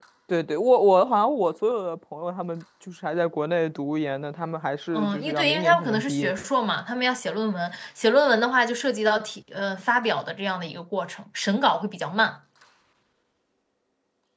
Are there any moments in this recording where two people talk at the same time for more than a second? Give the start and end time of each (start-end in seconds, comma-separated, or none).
4.9-6.3